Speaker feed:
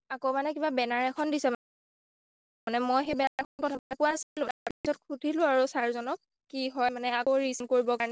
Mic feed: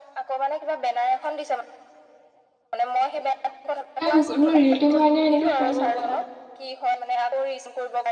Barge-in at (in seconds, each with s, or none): 4.0 s